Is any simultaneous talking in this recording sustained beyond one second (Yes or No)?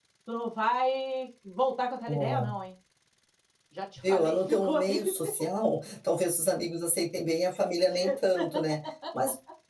Yes